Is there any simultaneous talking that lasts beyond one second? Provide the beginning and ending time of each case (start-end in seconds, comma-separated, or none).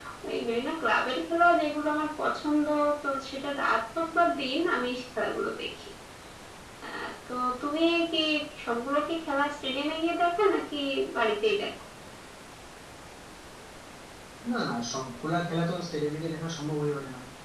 none